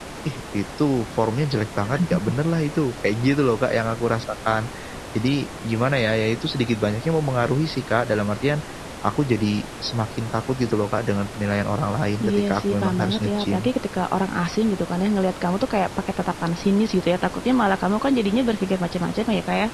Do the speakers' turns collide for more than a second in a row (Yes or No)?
Yes